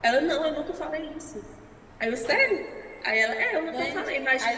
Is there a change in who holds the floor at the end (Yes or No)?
Yes